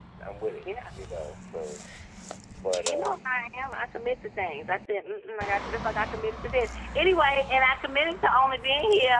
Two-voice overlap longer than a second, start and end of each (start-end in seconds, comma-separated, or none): none